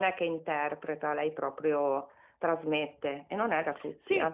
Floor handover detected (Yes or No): Yes